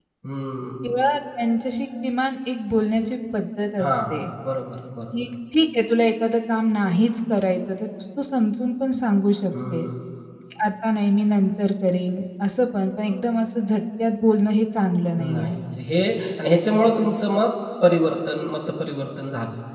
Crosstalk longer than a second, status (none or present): none